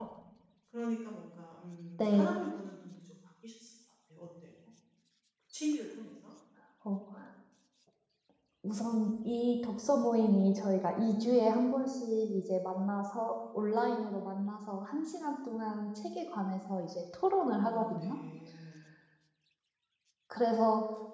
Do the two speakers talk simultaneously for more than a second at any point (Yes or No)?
No